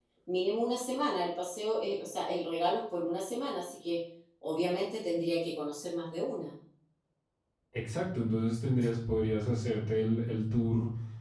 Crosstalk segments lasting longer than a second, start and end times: none

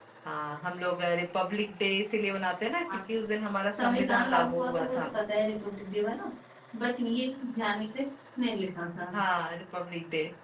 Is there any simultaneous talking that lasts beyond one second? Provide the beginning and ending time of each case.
3.8-5.1

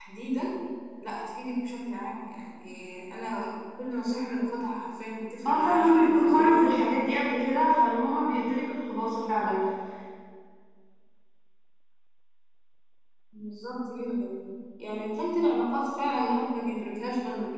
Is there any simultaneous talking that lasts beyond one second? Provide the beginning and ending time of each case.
5.5-6.7

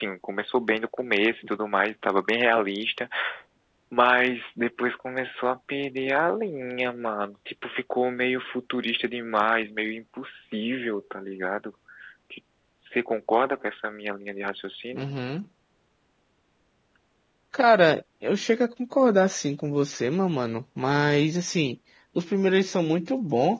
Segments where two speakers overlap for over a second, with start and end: none

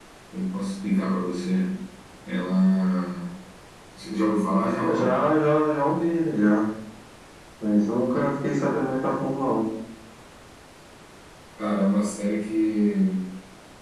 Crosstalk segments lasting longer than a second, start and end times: none

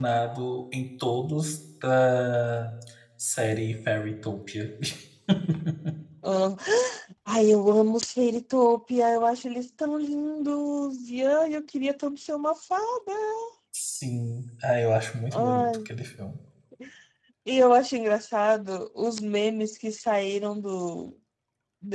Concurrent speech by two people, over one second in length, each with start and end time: none

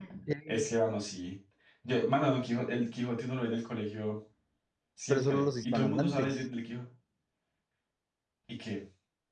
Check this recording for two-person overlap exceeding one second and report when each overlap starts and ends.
5.1-6.4

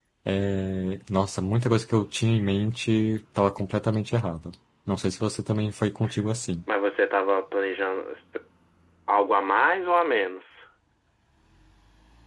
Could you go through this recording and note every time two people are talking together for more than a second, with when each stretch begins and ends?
none

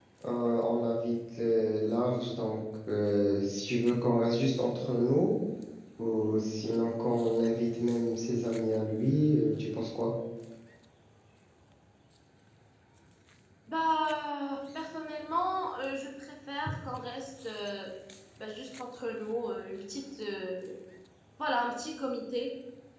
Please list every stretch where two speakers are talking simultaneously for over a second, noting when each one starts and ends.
none

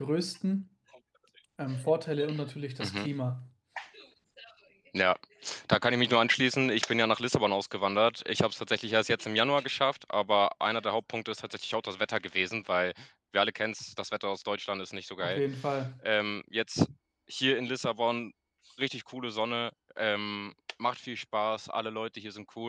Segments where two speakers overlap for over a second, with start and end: none

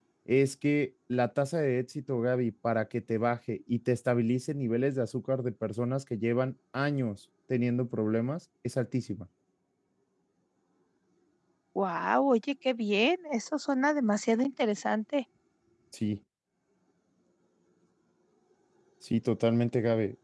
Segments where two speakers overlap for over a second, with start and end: none

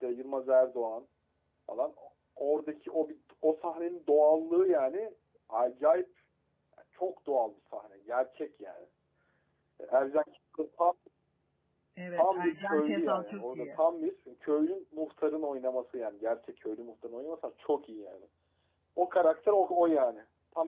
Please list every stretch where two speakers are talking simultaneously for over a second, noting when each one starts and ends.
12.2-13.7

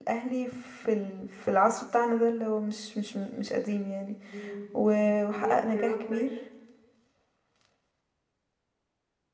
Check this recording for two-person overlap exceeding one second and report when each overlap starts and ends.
4.7-6.3

